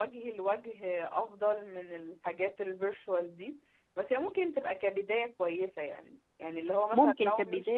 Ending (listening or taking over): listening